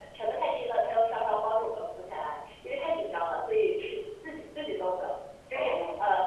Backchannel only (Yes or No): Yes